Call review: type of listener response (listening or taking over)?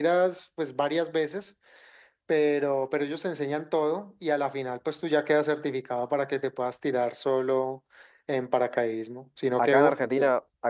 taking over